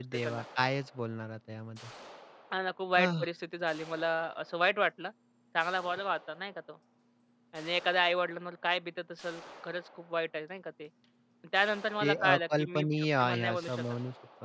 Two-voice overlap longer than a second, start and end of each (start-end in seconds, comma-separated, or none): 12.0-13.8